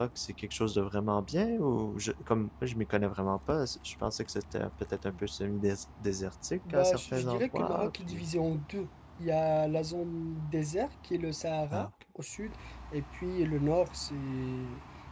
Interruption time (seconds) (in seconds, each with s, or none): 6.7 s